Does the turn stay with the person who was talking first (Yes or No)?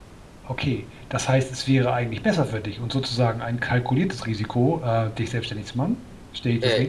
No